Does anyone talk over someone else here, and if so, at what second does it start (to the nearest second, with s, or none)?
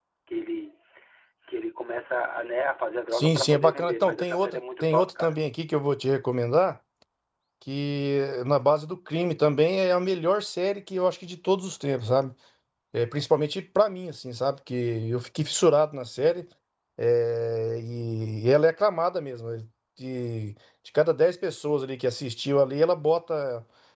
3 s